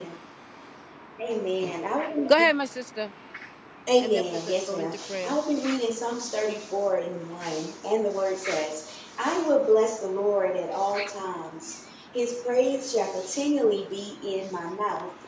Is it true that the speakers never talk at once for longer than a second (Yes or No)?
No